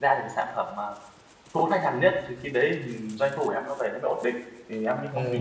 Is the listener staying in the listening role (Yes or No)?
No